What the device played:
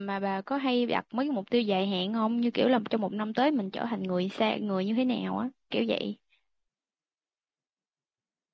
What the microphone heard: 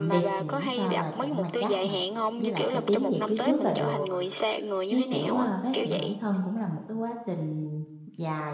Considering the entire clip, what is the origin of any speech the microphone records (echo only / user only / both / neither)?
both